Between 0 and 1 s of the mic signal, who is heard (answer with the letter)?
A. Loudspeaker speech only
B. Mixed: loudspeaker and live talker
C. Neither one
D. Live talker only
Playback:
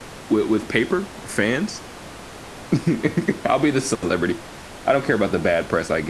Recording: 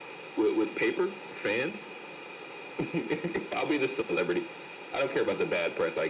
A